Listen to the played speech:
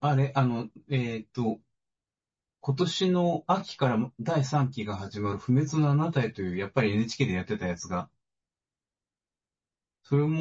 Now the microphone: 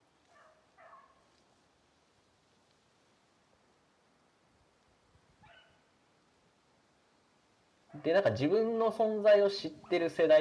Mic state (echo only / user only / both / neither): user only